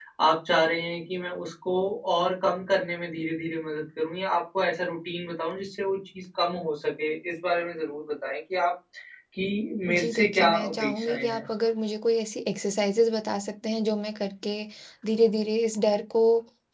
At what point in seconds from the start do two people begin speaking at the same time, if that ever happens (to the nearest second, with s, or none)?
10 s